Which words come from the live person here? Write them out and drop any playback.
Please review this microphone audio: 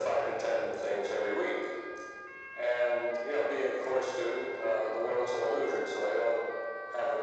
none

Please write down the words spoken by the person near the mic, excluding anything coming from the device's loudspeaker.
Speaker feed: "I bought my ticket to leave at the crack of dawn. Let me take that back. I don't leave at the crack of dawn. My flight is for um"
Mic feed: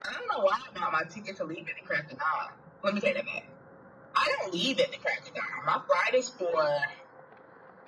none

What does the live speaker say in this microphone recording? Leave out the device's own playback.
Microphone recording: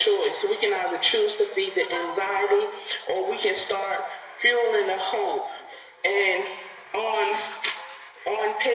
none

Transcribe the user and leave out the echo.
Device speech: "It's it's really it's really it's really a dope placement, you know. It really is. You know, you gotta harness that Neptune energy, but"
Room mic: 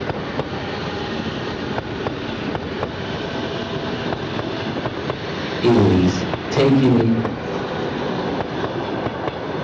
is taking

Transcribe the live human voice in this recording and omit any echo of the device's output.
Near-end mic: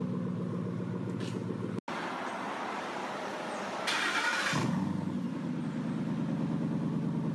none

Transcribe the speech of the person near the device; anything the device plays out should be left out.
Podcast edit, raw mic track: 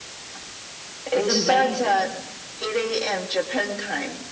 It's amazing

